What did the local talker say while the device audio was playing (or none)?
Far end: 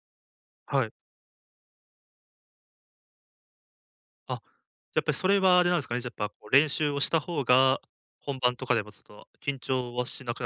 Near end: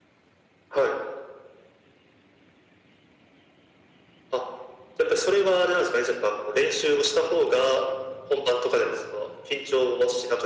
none